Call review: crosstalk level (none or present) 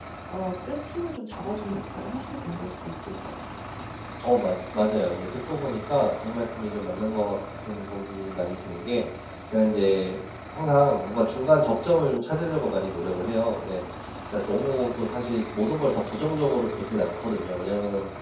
none